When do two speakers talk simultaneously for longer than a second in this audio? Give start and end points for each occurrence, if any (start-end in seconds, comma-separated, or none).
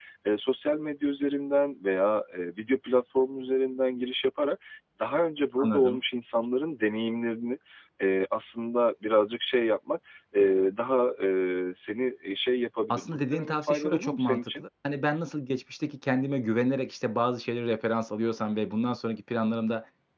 12.9-14.6